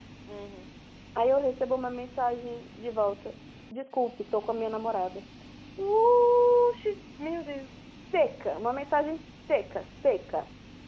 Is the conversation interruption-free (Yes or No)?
Yes